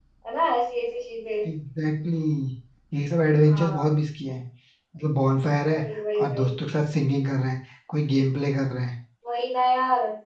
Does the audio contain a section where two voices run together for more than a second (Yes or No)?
No